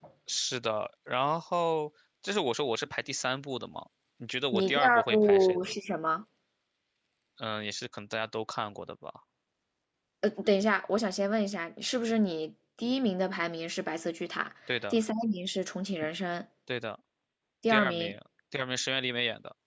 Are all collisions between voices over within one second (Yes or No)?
No